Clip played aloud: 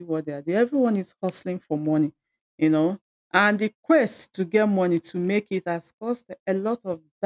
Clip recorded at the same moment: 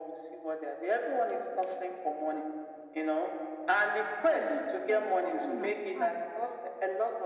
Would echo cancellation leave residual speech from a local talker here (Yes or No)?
Yes